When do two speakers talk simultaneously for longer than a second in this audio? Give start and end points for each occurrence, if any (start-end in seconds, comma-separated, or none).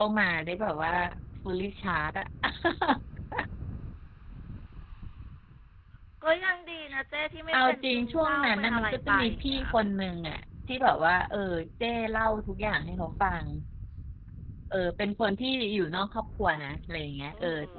7.5-9.7